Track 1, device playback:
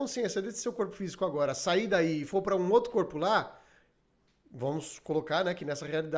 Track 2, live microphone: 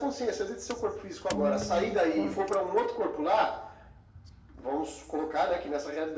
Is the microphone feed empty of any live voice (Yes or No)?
No